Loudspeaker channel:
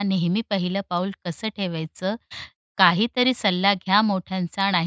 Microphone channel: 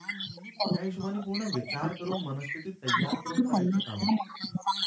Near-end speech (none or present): present